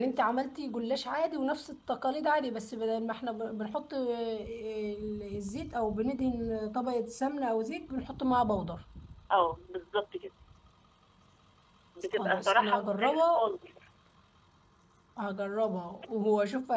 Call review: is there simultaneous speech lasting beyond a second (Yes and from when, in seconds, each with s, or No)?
Yes, from 12.1 s